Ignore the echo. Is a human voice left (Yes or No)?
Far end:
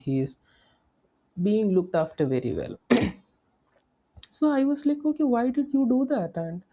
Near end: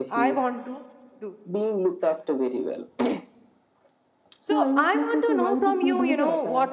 Yes